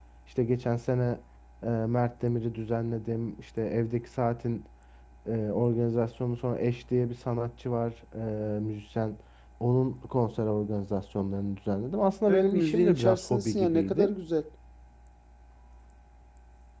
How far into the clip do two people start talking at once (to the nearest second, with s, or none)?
12 s